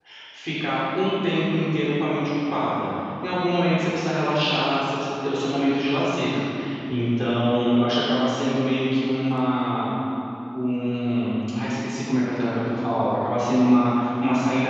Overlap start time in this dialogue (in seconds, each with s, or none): none